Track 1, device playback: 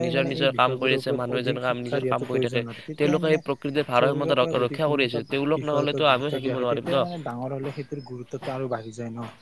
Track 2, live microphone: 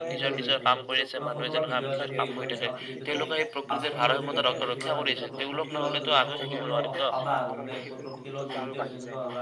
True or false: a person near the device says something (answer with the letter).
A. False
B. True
B